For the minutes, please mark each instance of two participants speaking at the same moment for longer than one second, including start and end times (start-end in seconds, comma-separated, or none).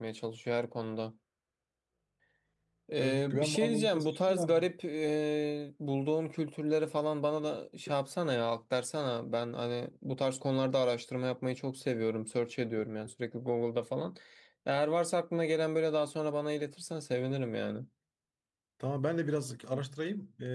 3.0-4.7